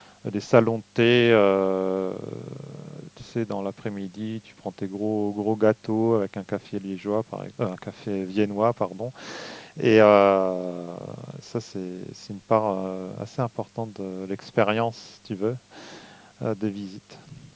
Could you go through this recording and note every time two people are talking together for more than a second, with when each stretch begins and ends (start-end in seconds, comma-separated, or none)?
none